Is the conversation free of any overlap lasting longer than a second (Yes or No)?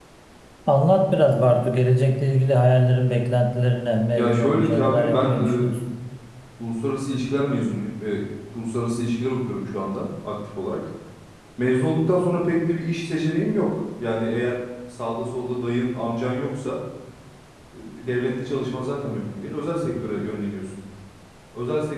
No